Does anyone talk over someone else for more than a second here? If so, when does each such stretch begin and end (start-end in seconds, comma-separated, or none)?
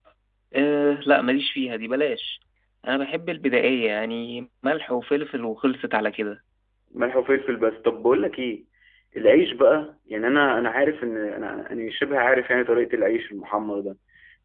none